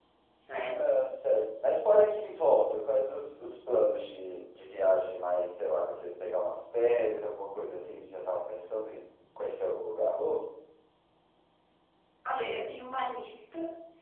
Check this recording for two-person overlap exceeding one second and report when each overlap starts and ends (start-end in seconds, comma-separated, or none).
none